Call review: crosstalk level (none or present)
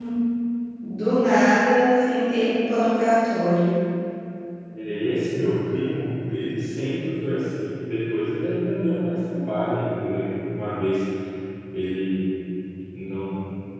none